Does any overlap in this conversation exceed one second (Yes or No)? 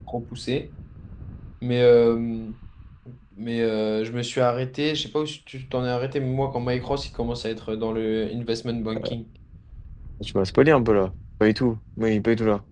No